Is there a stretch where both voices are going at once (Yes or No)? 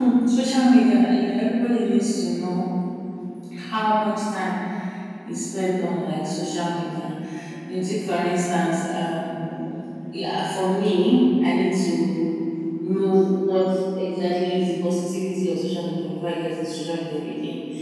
No